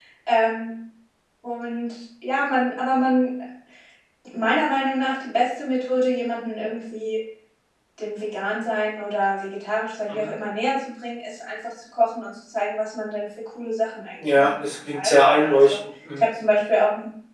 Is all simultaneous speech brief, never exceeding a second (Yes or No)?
No